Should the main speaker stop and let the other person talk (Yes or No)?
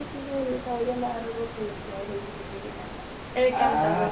Yes